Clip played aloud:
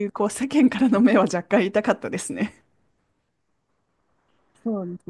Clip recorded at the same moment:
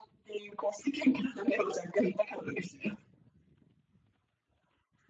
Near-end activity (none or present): none